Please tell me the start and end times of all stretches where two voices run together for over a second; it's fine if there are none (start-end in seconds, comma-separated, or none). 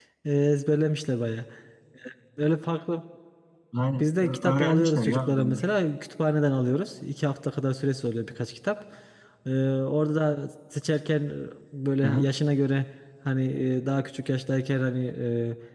4.0-5.6